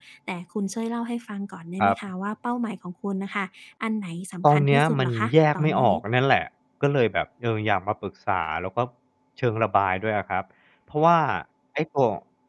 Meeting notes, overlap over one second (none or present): present